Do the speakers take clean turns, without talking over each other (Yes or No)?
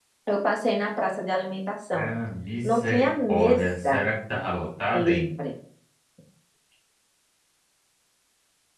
No